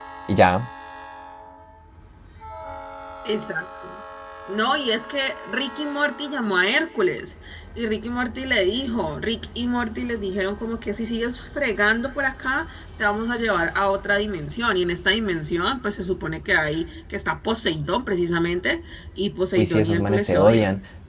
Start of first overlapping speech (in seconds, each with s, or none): 19.6 s